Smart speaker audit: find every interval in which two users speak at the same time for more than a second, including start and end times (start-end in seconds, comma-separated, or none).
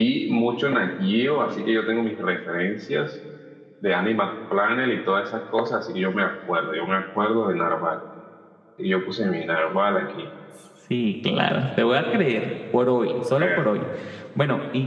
none